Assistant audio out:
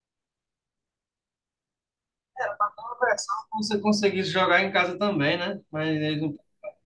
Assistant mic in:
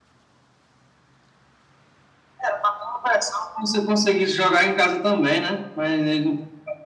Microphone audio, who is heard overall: echo only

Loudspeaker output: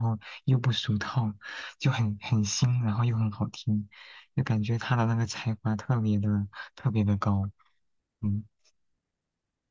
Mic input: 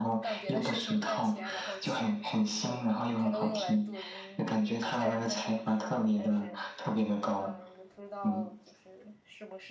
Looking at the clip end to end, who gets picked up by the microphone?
both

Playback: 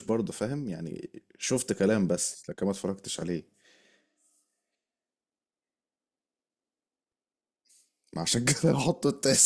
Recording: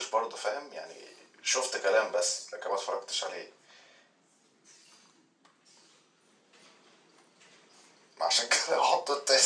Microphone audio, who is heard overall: echo only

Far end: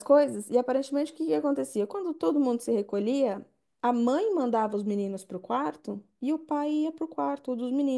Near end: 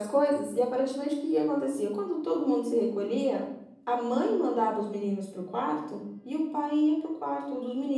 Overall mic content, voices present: echo only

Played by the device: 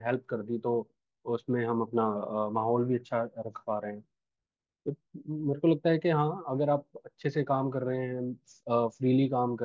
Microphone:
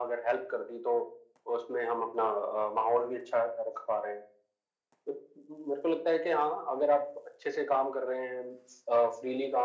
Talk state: echo only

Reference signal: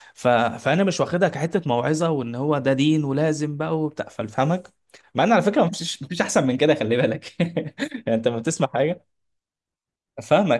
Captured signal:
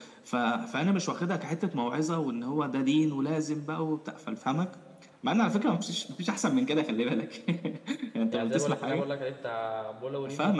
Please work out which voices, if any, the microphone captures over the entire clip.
both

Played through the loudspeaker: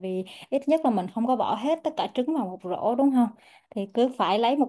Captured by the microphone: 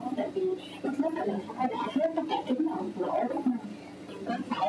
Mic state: echo only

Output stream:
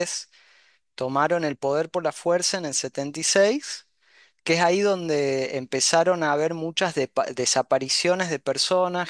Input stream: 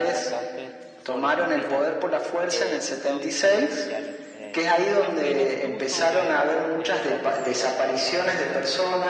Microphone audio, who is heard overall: both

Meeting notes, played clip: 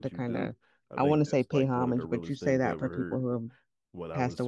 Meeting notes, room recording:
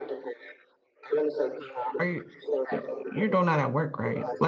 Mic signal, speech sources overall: both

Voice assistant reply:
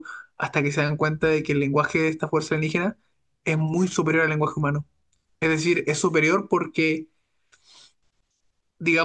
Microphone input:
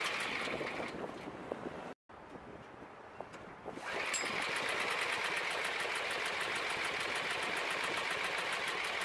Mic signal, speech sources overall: neither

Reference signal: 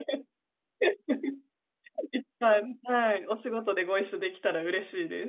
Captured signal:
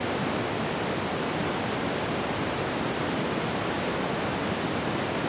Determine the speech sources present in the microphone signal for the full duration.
neither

